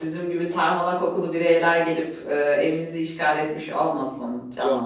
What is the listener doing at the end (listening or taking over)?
taking over